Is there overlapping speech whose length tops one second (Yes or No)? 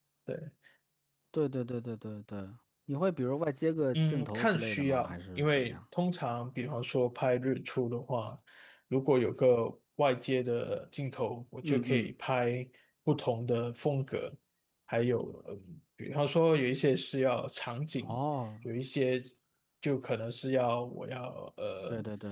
Yes